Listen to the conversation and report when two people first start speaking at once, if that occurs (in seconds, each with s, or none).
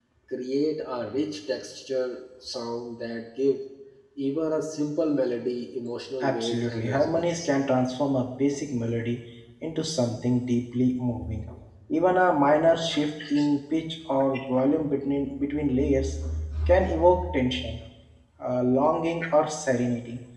6.2 s